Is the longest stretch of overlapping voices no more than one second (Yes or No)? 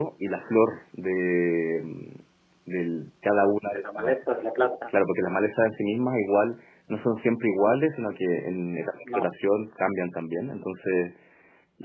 Yes